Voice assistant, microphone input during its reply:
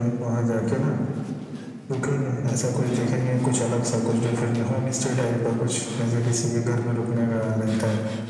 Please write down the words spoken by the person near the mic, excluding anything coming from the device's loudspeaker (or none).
none